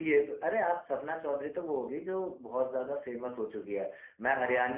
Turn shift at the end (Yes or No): No